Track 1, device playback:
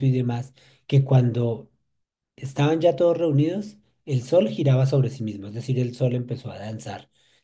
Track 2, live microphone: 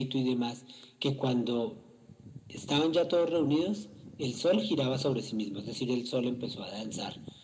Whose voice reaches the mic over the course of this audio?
echo only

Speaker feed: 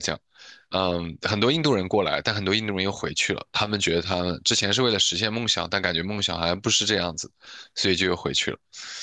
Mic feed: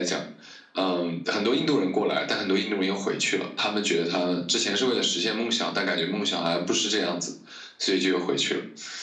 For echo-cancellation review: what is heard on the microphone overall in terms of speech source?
echo only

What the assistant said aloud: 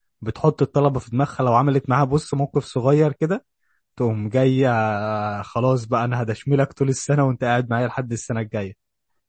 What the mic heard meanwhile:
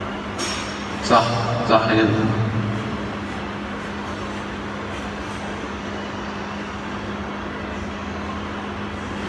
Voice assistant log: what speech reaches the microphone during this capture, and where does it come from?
user only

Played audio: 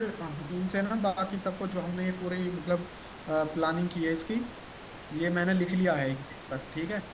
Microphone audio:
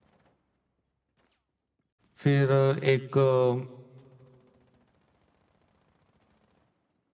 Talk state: user only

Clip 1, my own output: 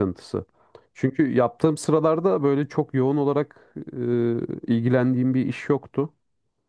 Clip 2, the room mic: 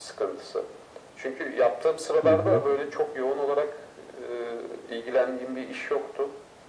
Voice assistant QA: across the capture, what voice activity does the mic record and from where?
both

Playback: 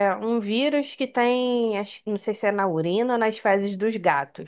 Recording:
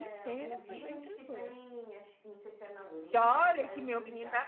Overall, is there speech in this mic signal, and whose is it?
both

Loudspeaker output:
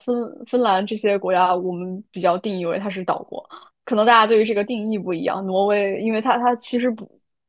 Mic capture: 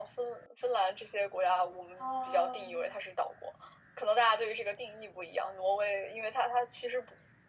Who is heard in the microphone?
both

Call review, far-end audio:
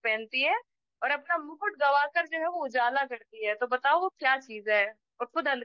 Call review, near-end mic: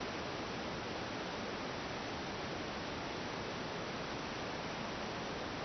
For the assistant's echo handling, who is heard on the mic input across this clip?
neither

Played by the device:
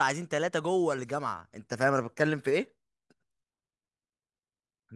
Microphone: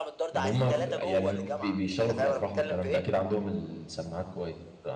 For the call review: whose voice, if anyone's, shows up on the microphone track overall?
both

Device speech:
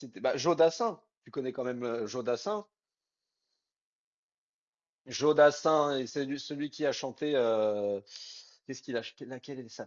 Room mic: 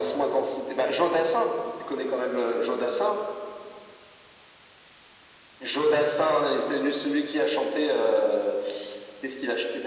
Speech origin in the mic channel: echo only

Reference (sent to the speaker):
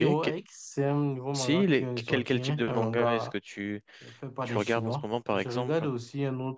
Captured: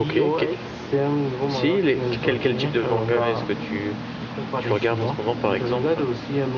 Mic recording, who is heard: echo only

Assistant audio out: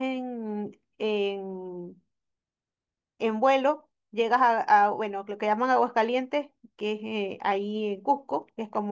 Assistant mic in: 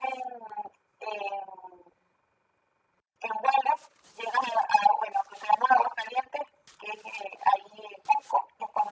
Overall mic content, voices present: echo only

